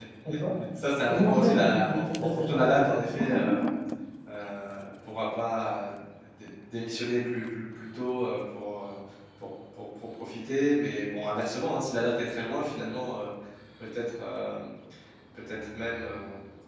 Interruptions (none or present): present